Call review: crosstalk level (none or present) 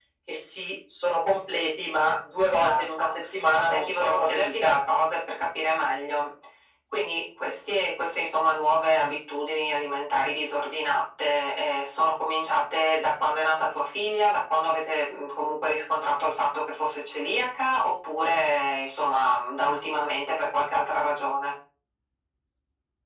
present